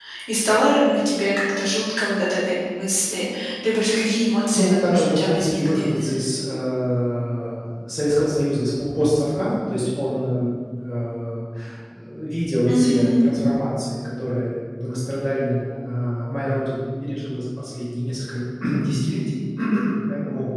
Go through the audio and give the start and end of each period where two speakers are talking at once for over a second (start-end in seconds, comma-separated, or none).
4.6-5.8